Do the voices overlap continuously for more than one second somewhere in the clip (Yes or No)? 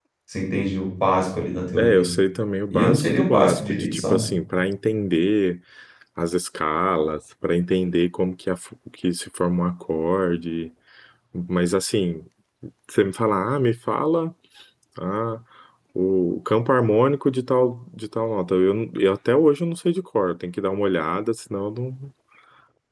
Yes